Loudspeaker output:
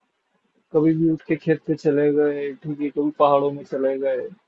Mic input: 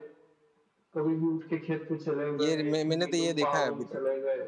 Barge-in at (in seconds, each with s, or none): 2.4 s